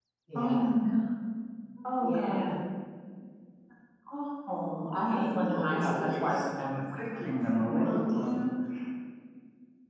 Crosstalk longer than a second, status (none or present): present